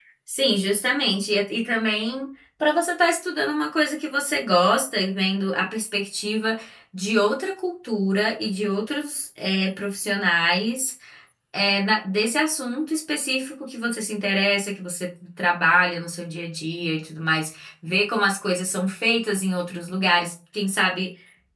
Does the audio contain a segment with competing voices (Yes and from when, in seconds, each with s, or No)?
No